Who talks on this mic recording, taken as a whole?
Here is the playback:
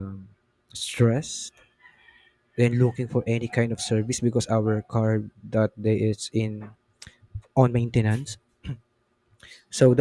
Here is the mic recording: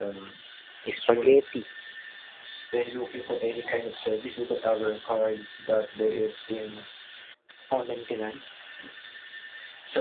both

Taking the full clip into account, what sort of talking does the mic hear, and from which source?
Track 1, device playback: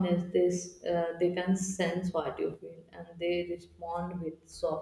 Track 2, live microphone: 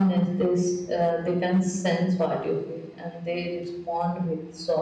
echo only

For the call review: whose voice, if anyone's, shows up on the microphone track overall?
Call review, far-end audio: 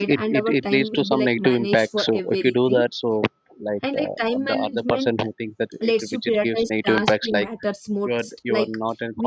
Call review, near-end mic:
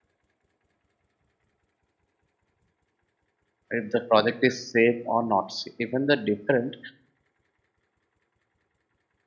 user only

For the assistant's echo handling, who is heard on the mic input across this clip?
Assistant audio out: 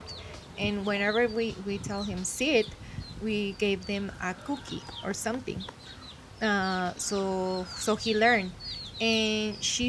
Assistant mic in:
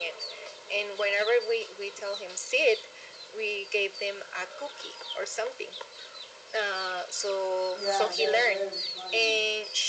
both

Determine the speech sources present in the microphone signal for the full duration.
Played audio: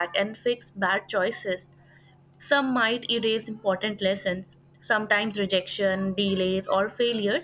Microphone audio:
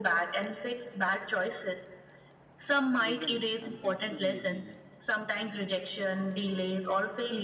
both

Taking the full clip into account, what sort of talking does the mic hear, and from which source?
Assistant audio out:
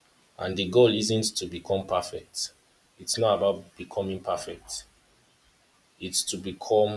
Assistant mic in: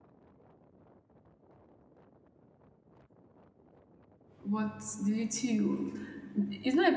user only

